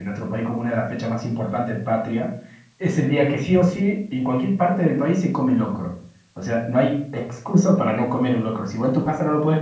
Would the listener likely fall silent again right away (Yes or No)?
Yes